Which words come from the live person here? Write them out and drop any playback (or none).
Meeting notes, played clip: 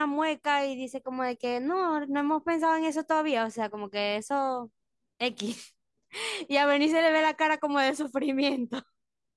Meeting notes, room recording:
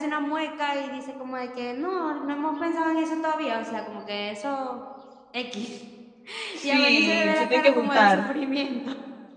sí, se tienen que juntar.